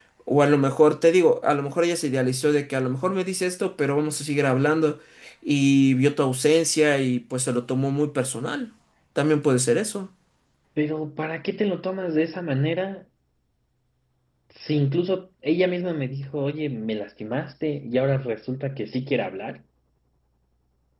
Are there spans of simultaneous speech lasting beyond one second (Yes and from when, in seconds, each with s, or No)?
No